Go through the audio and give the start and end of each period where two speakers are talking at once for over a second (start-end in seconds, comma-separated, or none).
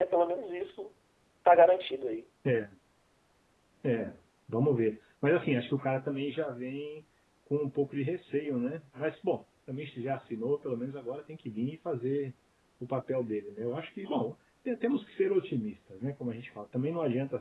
none